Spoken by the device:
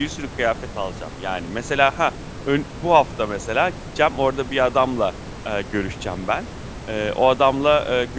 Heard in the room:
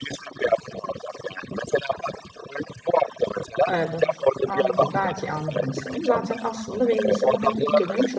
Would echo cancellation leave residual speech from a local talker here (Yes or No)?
Yes